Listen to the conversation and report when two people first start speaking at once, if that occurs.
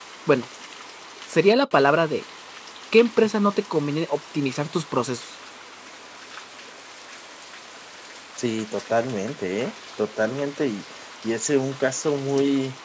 none

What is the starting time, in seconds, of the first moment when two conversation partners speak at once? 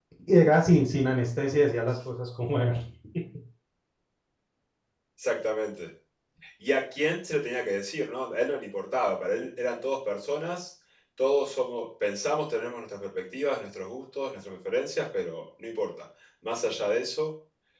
none

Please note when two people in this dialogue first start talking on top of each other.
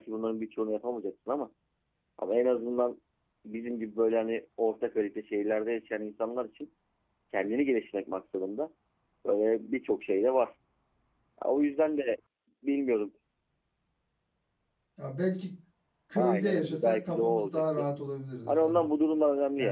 16.2 s

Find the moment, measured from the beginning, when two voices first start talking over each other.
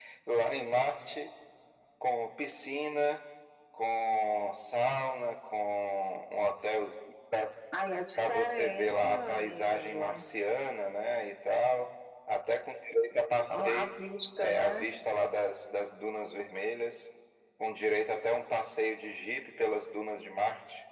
8.2 s

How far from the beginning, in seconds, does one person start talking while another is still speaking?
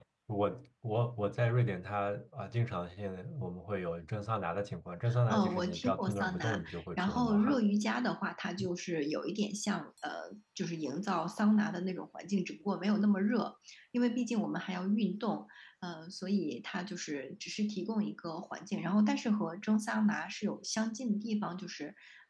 5.1 s

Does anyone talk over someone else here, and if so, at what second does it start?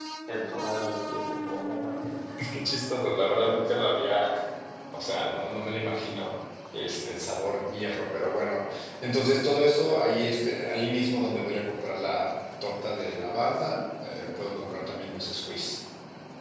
none

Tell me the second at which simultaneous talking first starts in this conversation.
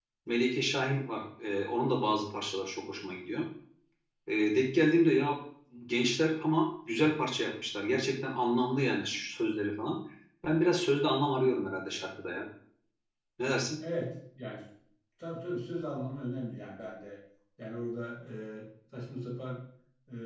none

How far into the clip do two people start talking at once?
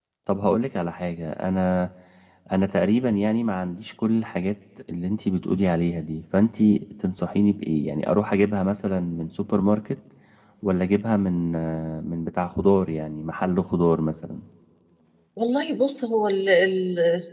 none

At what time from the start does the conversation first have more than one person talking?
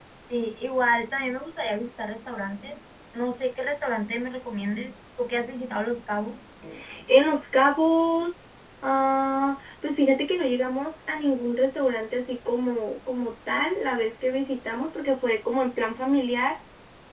none

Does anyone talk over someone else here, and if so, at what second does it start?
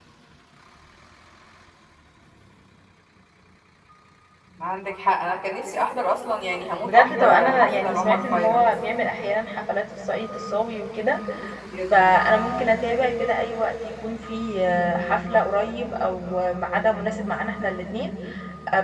6.8 s

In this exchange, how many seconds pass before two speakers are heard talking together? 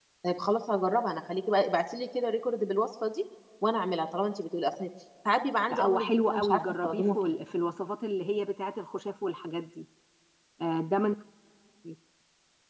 5.7 s

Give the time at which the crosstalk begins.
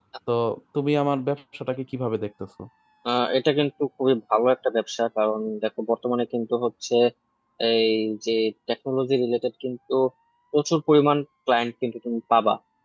none

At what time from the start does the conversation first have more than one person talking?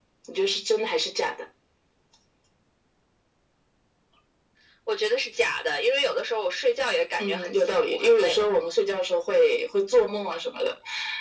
7.2 s

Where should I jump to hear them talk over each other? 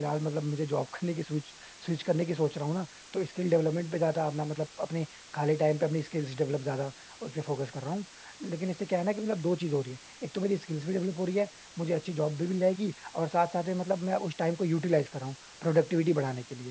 none

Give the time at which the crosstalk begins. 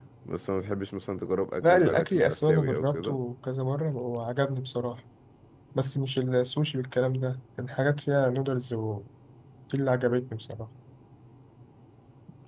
1.6 s

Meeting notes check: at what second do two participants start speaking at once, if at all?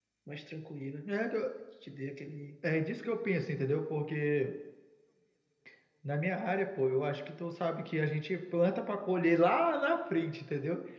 none

